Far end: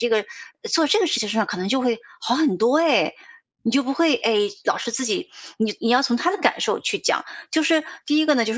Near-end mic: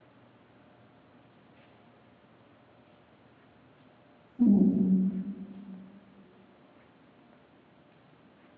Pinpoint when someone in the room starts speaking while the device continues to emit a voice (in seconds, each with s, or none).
4.4 s